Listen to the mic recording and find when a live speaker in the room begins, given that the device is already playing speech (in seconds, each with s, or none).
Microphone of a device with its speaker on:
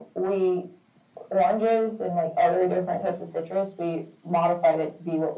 none